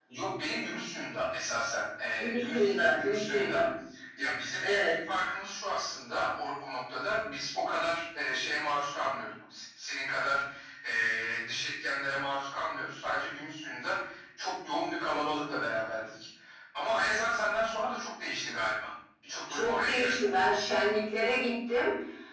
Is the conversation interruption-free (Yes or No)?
No